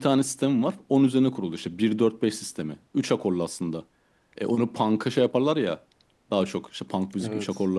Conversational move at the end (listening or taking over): listening